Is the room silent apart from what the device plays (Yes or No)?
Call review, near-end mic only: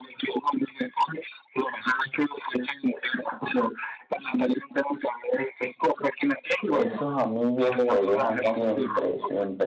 No